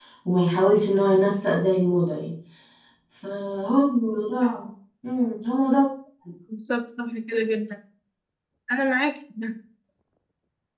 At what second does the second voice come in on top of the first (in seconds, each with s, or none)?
none